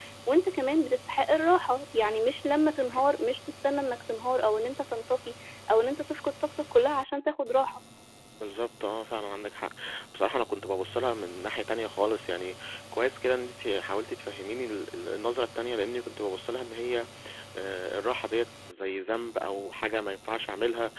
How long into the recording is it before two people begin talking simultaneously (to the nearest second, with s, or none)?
none